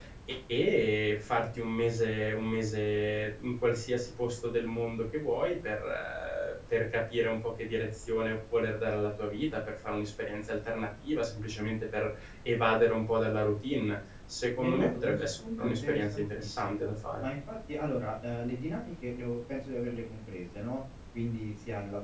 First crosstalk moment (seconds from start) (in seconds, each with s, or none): 14.5 s